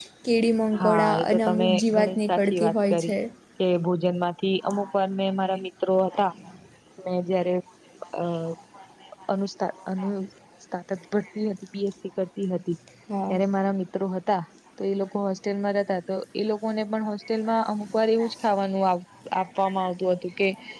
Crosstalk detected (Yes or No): Yes